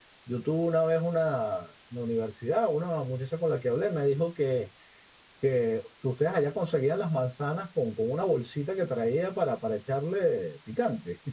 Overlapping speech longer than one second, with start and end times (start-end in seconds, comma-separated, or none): none